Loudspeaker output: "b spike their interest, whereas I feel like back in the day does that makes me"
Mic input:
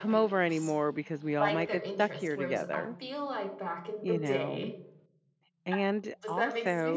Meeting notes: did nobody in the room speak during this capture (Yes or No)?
No